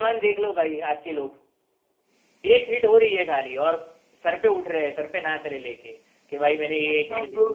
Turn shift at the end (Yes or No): No